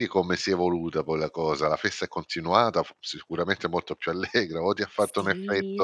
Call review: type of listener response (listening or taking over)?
taking over